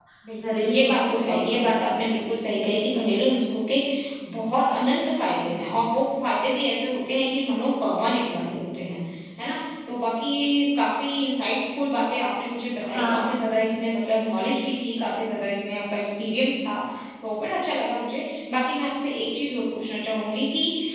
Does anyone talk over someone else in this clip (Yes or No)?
Yes